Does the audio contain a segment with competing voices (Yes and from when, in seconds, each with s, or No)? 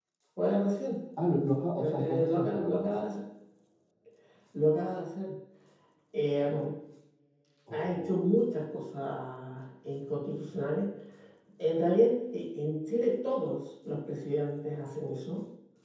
Yes, from 1.8 s